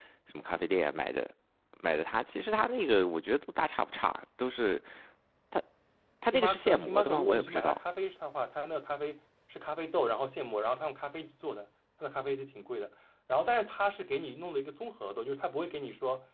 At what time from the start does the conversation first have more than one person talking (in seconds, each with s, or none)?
6.3 s